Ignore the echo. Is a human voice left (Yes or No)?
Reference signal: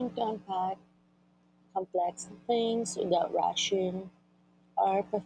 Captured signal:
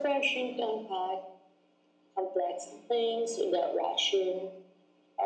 No